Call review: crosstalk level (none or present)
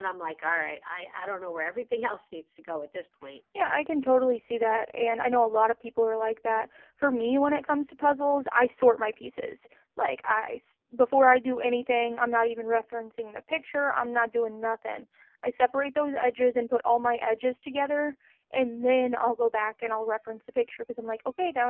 none